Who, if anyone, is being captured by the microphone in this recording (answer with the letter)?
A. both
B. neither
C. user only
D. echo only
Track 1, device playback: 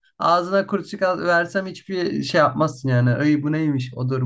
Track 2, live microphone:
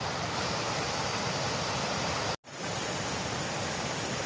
B